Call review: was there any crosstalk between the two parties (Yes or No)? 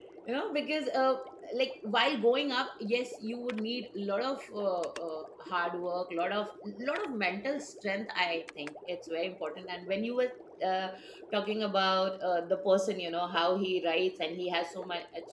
No